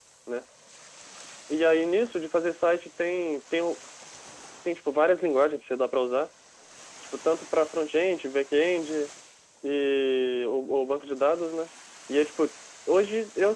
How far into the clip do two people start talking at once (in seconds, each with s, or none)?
none